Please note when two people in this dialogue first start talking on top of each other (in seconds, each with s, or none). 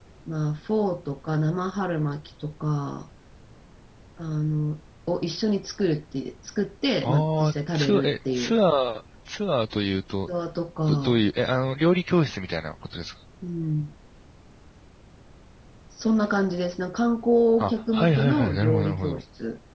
7.0 s